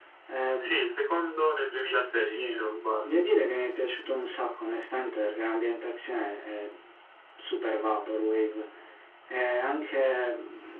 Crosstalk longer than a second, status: none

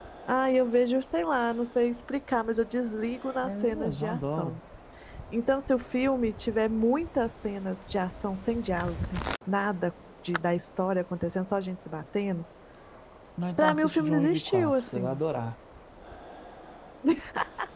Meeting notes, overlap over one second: present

